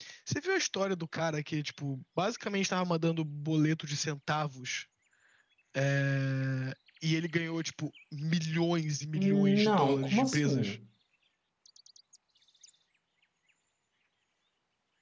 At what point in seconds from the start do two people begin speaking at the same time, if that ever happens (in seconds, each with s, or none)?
9.2 s